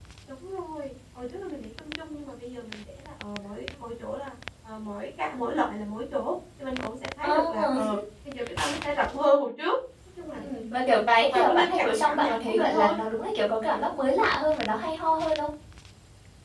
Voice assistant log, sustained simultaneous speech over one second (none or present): present